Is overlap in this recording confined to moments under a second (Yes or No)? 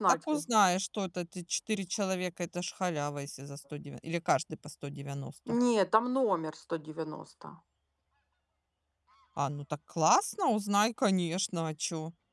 Yes